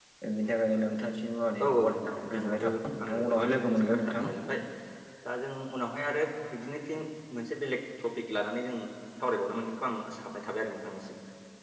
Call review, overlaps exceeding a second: present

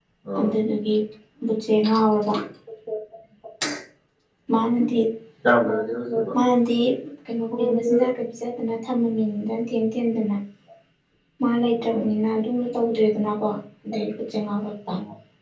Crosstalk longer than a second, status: none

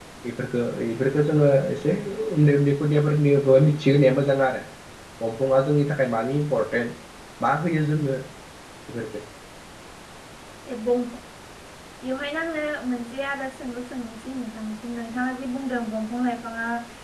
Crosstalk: none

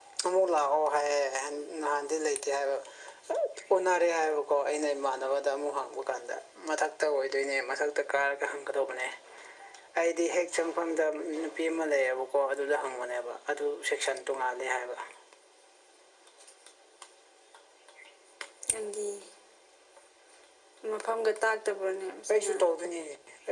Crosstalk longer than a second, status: none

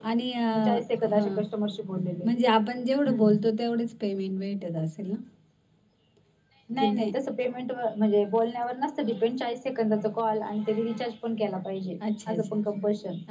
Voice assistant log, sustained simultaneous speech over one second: none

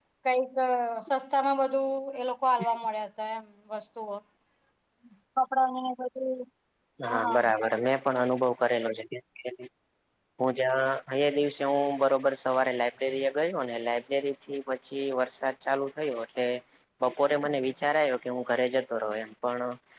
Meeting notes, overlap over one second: none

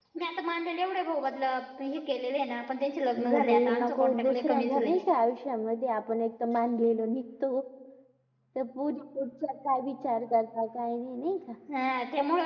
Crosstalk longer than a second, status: present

